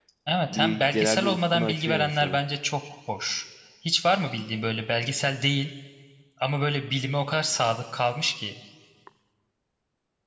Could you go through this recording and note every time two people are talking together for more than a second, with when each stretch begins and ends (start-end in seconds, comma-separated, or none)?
0.5-2.4